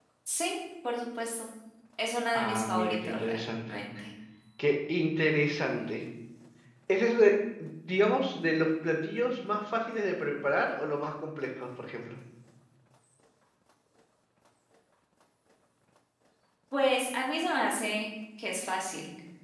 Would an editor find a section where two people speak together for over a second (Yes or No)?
Yes